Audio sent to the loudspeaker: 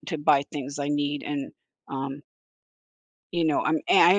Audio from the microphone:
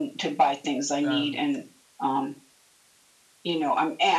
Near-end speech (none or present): present